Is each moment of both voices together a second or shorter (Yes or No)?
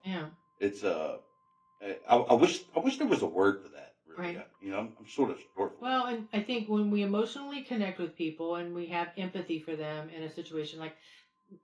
Yes